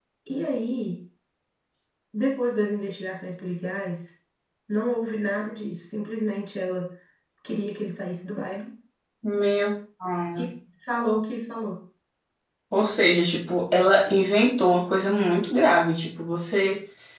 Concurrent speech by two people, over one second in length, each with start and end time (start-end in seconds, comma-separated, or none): none